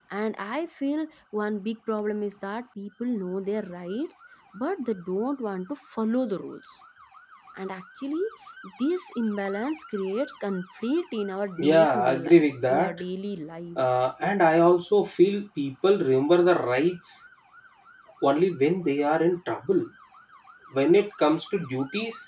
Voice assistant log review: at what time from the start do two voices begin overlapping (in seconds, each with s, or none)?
11.6 s